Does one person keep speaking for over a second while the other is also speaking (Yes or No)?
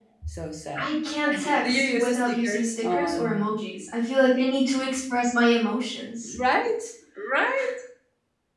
Yes